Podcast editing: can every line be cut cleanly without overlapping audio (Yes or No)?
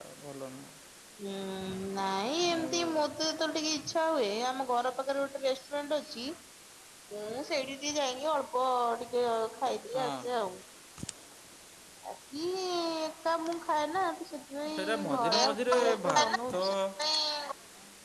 No